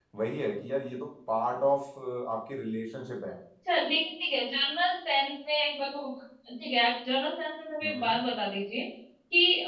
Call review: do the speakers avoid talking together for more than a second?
Yes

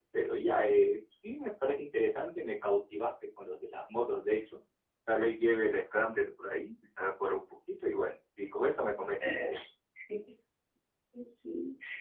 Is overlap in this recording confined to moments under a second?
Yes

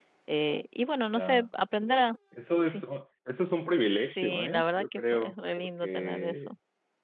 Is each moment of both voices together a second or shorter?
No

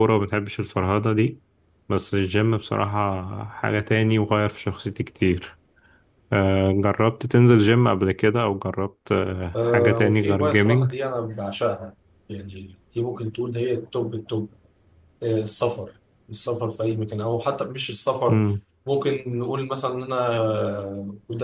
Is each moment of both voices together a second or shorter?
No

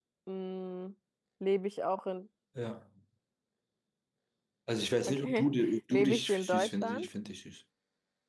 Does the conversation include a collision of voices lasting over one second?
Yes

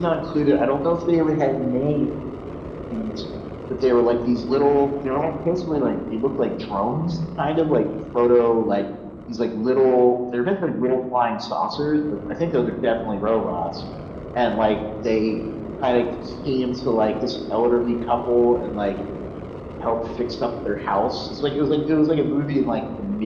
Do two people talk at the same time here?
No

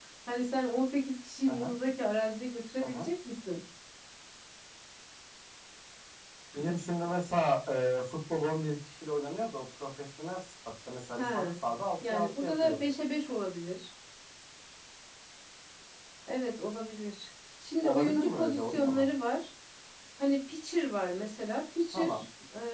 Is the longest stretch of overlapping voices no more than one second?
No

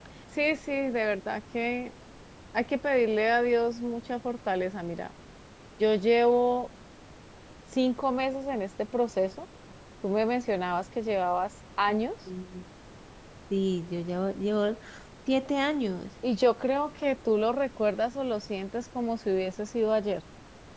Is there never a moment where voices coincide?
Yes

